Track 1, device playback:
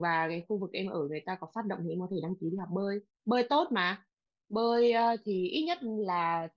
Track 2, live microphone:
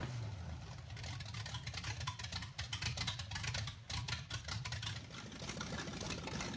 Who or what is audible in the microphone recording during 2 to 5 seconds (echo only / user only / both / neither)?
neither